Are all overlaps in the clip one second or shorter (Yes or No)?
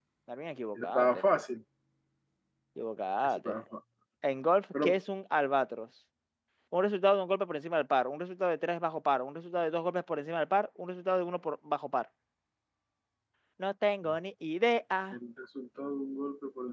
Yes